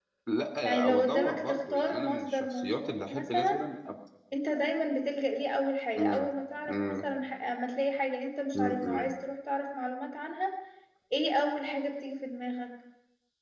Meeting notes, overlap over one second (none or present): present